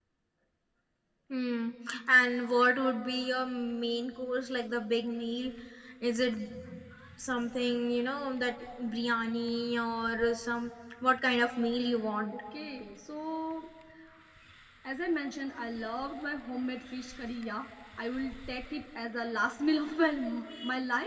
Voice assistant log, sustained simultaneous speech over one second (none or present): none